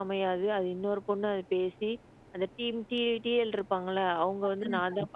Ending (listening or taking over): listening